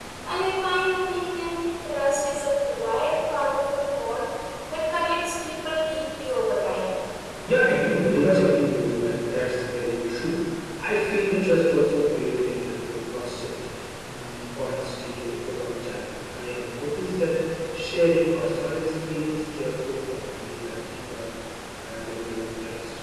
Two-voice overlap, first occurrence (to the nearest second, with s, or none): none